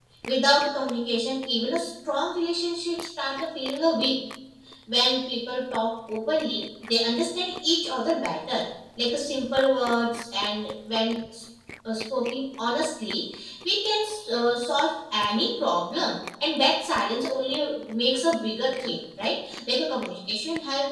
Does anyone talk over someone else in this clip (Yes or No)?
No